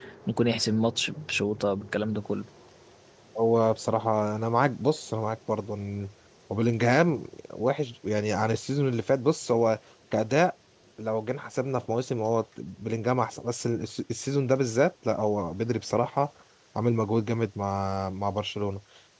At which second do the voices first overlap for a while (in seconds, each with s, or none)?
none